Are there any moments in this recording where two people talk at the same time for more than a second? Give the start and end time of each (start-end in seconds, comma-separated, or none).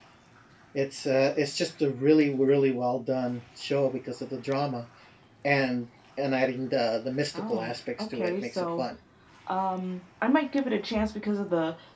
7.3-8.8